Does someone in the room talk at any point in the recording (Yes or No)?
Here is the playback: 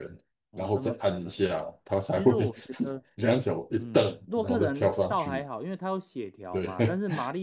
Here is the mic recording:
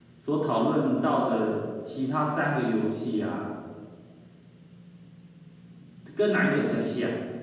Yes